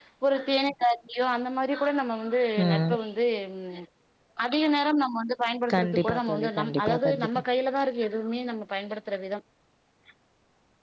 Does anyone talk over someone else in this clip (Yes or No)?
Yes